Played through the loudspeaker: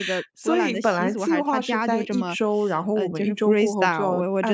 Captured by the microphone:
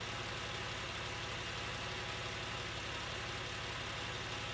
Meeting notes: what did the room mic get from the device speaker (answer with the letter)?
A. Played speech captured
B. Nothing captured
B